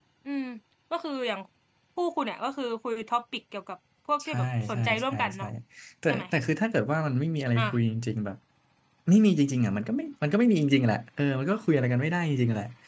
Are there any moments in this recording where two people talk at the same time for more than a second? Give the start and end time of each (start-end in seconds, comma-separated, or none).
4.2-5.4